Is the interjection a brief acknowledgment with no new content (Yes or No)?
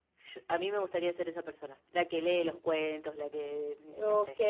No